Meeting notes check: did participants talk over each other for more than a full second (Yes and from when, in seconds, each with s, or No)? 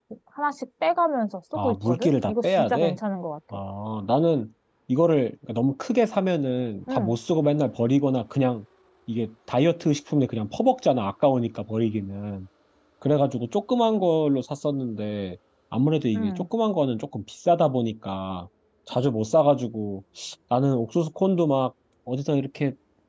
Yes, from 1.6 s